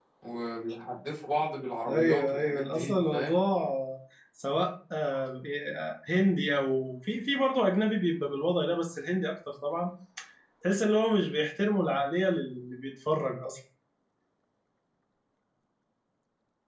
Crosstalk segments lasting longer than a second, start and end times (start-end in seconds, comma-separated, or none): 1.9-3.4